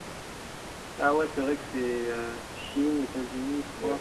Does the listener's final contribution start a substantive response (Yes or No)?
Yes